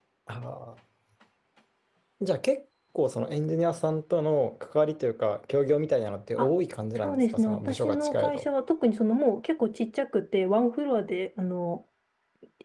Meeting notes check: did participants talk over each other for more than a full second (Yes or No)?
Yes